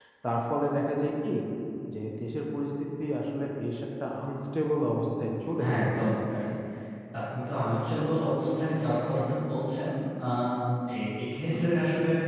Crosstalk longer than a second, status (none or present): none